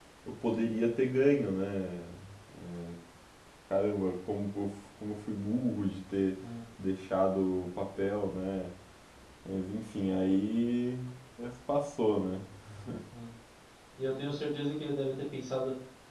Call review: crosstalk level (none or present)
none